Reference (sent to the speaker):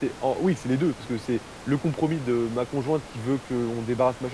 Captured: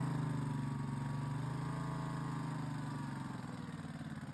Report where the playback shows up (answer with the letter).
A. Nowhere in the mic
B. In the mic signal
A